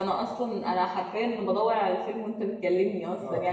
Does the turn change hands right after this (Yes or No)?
Yes